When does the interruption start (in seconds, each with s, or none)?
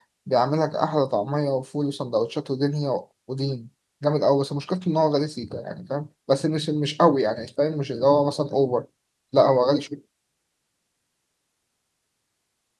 none